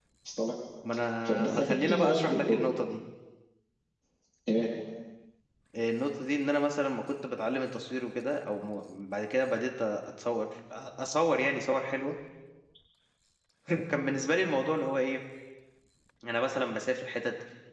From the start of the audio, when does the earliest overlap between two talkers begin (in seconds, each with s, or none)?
1.2 s